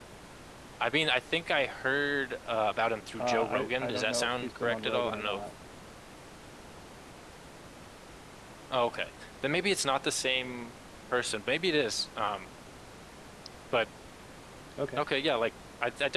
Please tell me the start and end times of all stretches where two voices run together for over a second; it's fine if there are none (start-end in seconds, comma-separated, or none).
3.2-5.4